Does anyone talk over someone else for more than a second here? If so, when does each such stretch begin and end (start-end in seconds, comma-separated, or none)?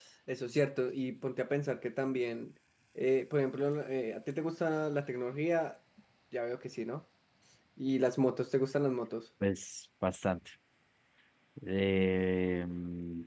none